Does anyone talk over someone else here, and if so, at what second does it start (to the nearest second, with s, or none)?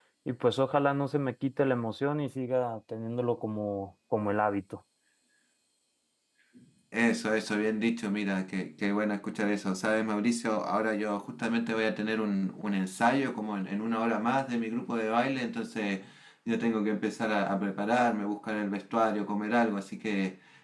none